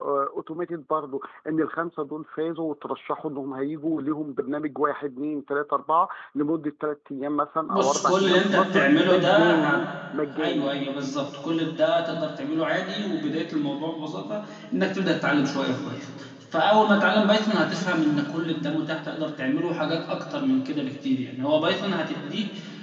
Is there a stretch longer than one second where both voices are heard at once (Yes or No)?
Yes